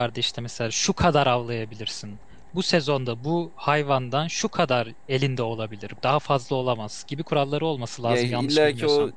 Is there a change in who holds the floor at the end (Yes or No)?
Yes